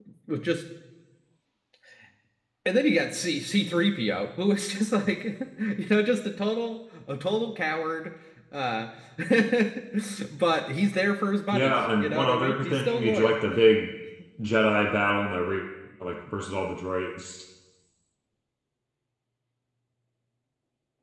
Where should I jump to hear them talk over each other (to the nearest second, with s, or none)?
12 s